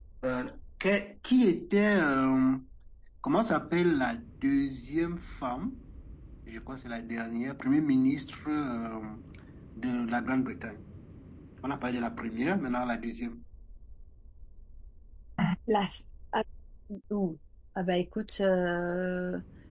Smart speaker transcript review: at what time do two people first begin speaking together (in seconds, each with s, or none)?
none